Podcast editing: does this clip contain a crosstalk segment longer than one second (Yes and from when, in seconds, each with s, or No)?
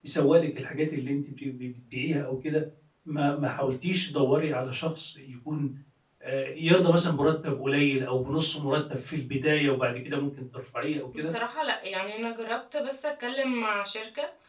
No